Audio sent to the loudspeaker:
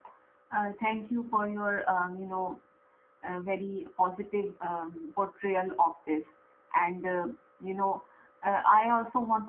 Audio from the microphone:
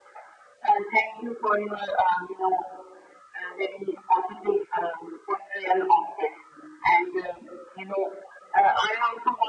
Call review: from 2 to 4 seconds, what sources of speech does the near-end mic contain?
echo only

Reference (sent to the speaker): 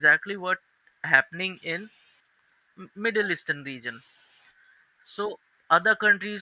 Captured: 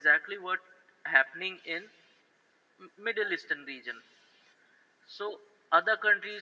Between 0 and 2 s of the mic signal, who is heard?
echo only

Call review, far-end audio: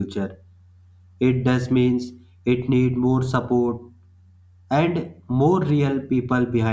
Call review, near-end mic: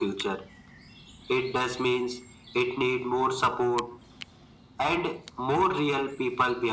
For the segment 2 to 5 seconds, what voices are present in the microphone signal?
echo only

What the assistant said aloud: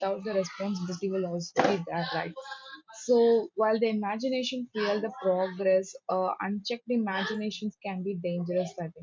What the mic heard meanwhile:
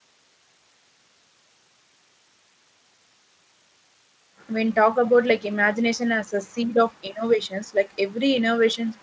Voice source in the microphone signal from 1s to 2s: neither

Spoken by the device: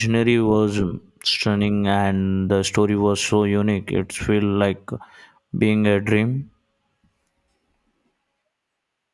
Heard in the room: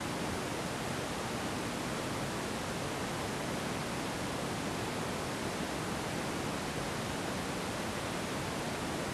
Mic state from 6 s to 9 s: neither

